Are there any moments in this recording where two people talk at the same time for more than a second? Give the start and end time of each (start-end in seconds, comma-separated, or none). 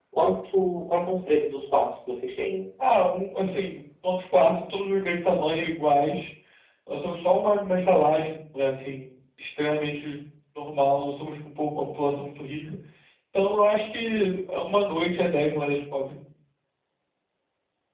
none